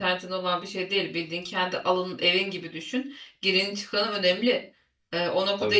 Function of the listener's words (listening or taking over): listening